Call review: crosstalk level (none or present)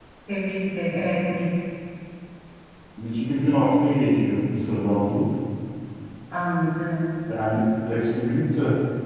none